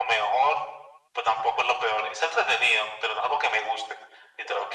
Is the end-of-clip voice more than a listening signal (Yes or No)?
Yes